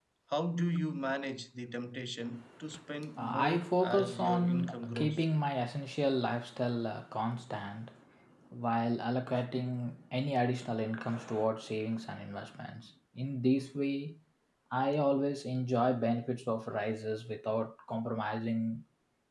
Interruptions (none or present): present